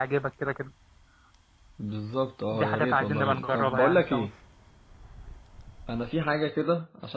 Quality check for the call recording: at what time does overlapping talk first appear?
2.5 s

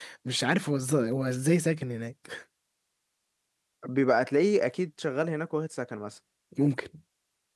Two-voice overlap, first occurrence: none

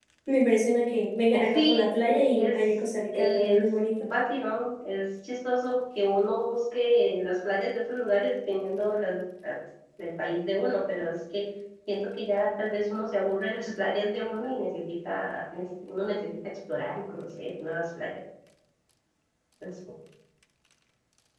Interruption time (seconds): 1.3 s

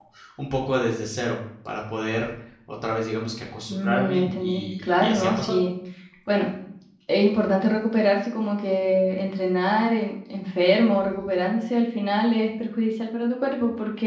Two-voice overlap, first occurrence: 3.7 s

